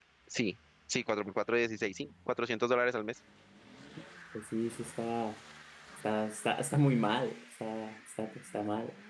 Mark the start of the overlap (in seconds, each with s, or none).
none